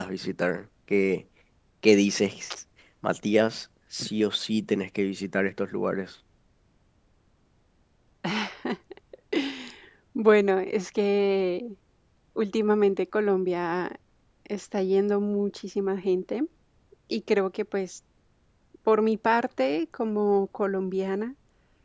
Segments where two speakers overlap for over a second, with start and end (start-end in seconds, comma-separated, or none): none